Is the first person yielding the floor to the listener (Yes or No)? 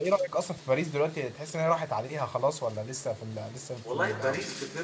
Yes